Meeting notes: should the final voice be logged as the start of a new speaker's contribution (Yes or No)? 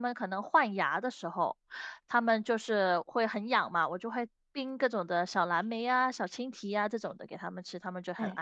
Yes